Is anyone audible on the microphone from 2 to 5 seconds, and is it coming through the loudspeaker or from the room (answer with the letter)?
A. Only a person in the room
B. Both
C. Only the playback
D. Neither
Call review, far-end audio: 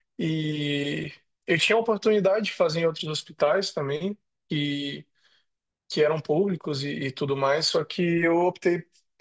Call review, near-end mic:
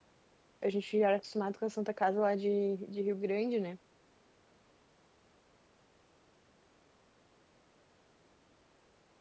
A